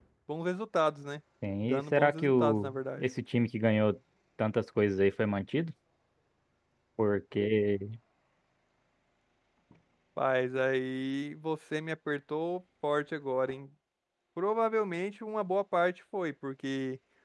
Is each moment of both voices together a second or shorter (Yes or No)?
No